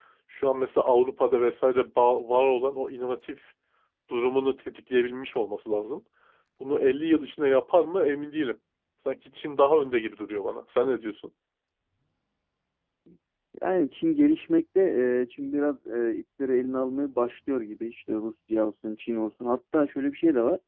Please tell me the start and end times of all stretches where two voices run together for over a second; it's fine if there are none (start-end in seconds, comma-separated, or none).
none